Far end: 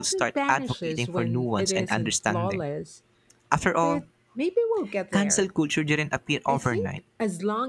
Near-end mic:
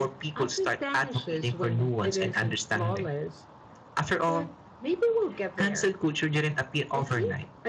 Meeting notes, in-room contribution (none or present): none